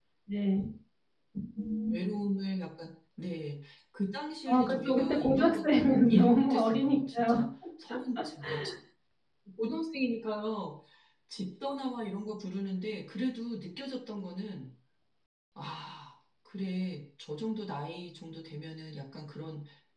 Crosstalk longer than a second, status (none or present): present